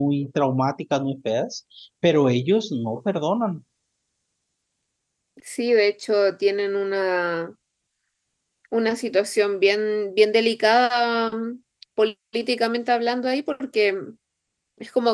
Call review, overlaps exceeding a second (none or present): none